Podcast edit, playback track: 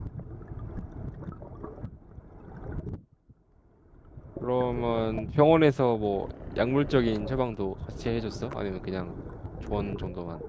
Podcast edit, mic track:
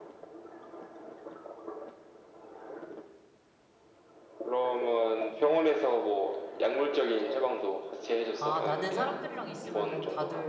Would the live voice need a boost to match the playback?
Yes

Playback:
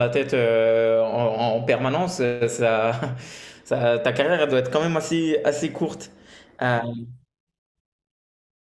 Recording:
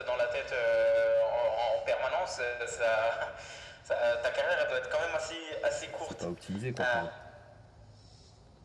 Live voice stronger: No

